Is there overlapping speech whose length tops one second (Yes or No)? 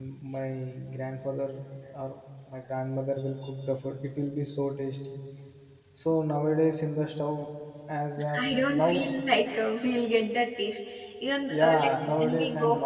Yes